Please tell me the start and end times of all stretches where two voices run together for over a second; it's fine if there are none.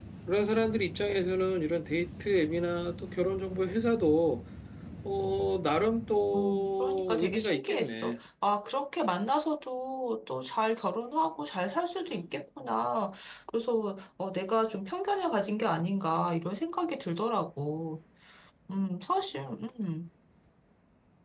6.4-8.2

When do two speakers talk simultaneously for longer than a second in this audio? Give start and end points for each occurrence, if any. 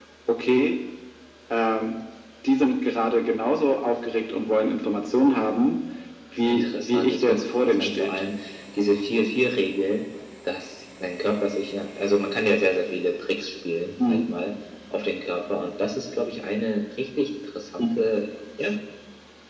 6.4-8.2

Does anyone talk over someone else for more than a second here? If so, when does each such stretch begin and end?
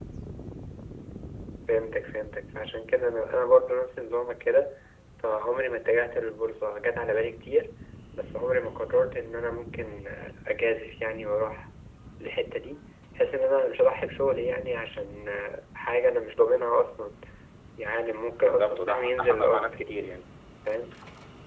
18.4-19.7

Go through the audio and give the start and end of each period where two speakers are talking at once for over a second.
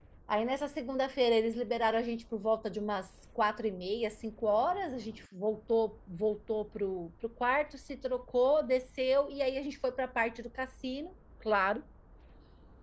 none

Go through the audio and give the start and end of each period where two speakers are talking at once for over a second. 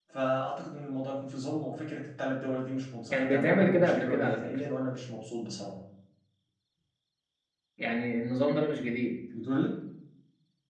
3.1-4.6

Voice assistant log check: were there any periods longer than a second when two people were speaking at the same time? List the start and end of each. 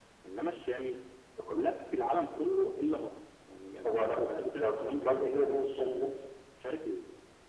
4.6-6.1

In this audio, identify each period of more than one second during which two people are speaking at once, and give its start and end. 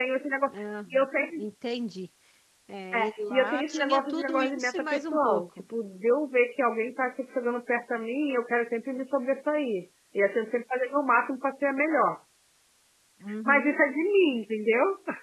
3.0-5.4

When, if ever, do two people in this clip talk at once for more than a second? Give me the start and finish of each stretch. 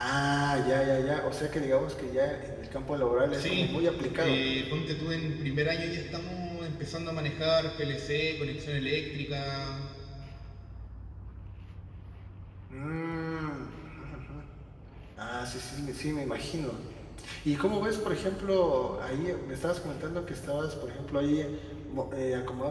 none

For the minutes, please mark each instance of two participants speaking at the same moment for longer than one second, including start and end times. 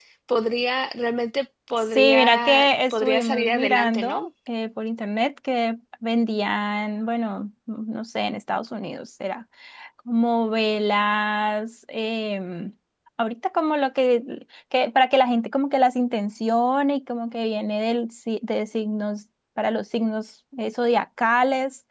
1.9-4.3

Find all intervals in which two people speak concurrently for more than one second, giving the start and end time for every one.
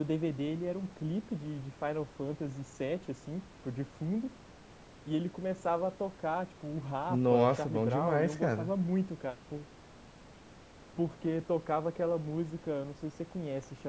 7.1-8.7

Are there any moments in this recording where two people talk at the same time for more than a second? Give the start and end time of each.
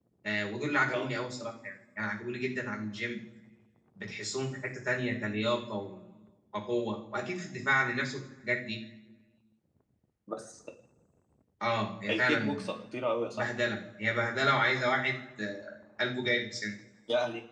none

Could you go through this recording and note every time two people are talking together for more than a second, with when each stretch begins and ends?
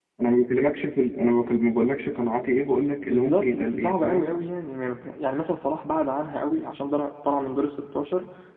3.0-4.3

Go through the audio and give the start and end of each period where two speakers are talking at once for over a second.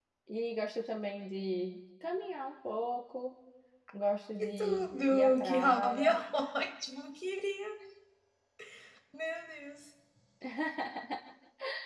4.4-6.2

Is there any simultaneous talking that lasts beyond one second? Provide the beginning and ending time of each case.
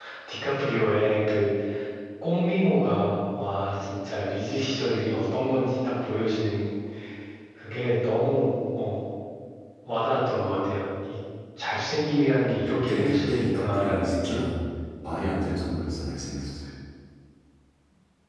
12.9-14.4

